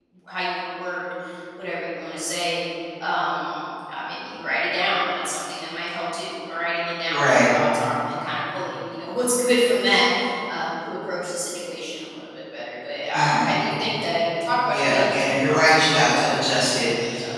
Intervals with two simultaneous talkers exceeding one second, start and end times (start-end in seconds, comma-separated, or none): 14.7-16.3